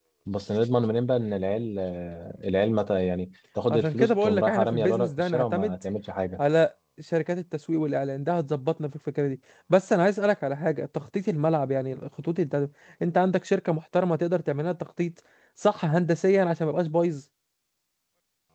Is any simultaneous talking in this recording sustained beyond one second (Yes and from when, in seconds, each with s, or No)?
Yes, from 3.7 s